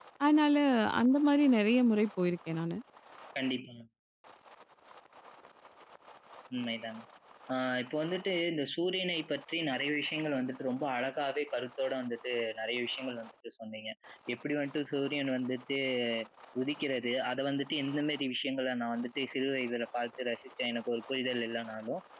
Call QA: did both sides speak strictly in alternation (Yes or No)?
Yes